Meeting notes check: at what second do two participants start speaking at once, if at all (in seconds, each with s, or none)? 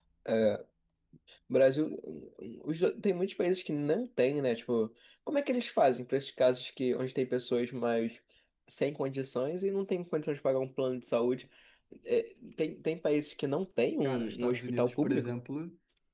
14.0 s